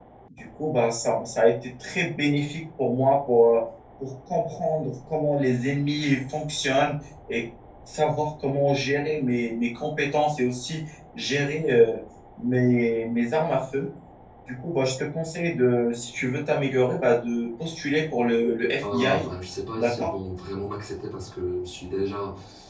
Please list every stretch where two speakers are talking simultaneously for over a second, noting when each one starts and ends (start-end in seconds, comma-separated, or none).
none